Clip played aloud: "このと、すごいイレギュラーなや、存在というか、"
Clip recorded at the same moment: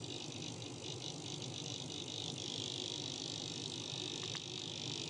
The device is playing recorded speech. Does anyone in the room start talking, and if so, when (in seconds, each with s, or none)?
none